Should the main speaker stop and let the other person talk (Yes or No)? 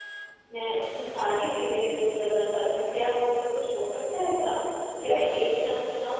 No